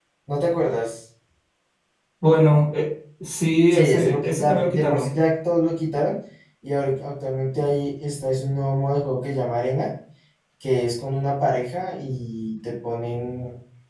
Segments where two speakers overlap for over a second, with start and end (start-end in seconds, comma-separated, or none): 3.7-5.1